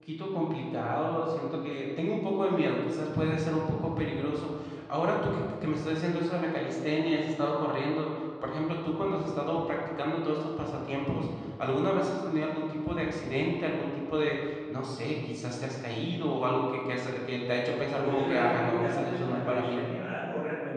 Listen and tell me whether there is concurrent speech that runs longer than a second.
Yes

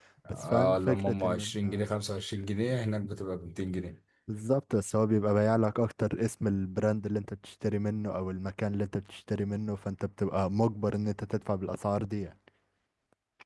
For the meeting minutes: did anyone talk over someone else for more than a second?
Yes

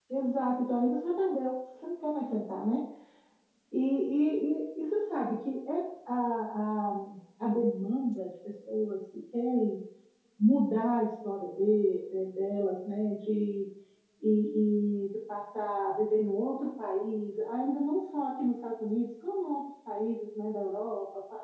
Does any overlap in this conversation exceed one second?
No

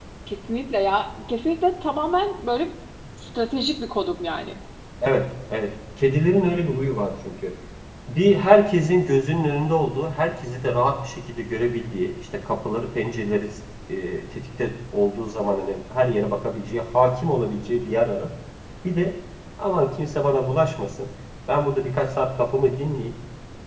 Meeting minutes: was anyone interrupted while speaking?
No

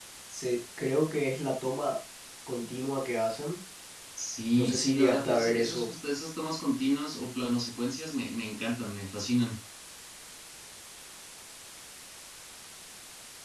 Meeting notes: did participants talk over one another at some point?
Yes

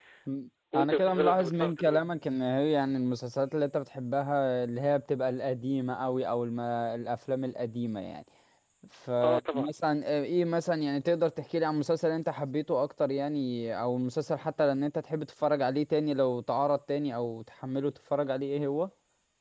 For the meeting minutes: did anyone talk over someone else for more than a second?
Yes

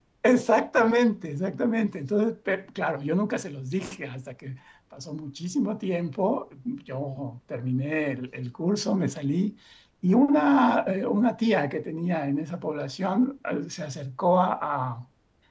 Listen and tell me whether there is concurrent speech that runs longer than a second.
No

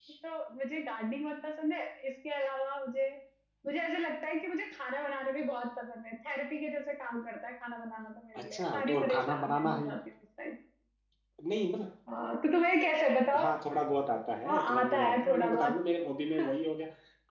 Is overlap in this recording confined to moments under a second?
No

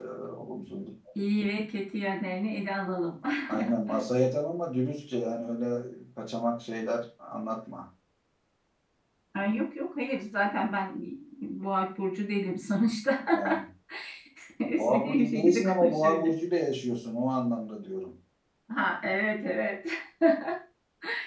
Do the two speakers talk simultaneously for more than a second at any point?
Yes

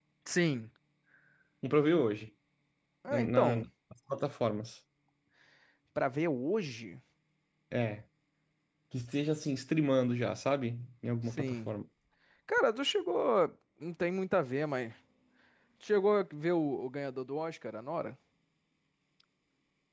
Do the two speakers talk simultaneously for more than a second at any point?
No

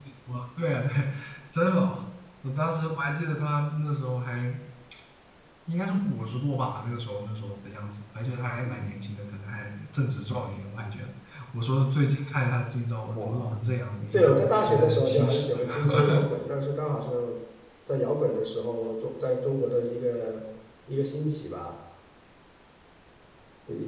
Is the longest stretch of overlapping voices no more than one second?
No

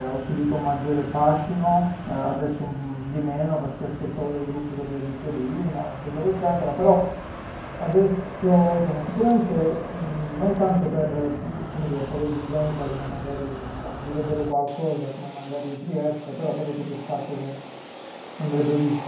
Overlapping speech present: No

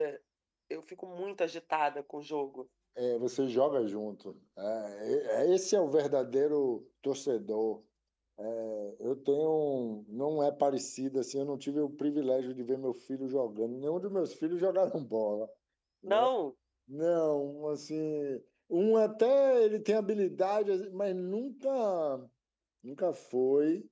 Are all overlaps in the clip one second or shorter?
Yes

